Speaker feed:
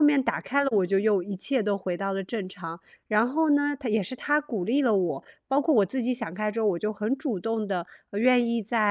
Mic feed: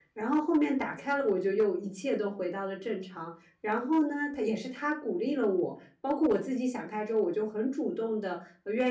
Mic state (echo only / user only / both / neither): echo only